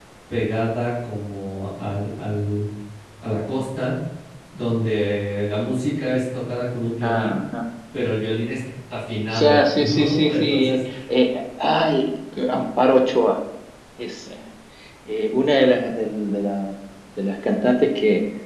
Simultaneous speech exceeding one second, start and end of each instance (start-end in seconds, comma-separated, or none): 9.4-10.8